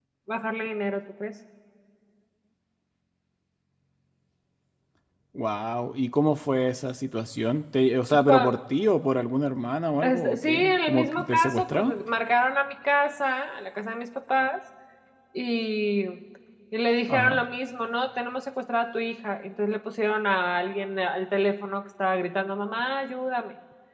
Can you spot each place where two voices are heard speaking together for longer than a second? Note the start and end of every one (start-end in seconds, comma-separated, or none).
10.0-11.9